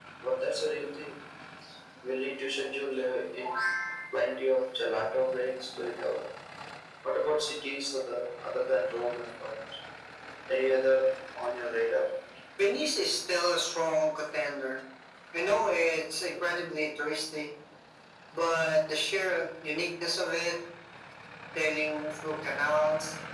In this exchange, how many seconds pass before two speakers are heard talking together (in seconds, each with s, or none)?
none